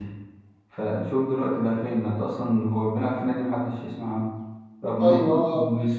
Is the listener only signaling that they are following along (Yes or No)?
Yes